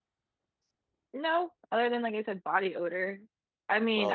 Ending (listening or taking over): listening